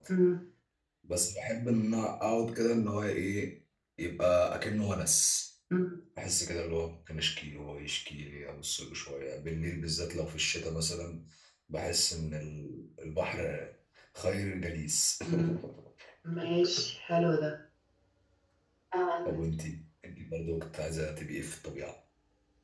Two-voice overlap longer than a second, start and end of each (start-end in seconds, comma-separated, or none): none